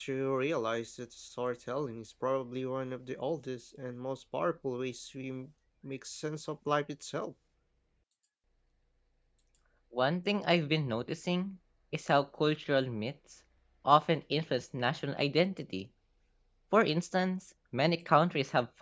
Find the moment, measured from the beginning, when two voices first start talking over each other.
none

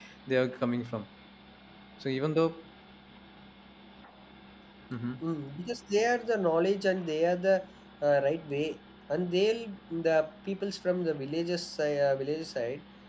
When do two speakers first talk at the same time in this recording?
none

